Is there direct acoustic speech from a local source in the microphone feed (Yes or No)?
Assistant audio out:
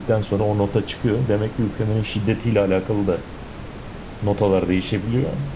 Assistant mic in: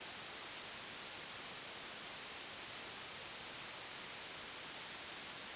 No